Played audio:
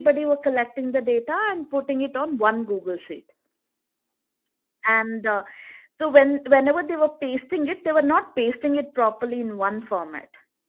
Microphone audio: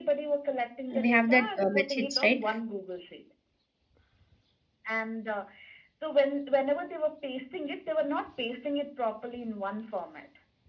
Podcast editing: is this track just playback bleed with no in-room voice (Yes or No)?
No